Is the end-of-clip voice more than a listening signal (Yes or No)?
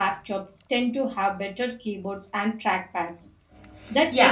Yes